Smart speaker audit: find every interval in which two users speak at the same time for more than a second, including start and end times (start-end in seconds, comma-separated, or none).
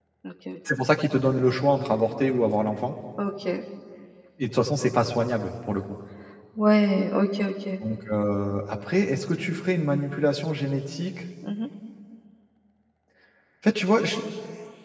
none